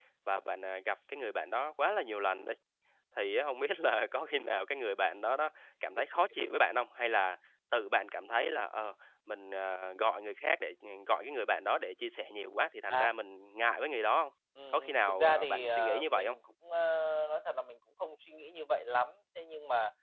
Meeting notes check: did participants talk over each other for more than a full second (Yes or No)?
Yes